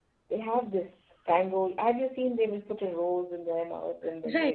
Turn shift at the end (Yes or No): Yes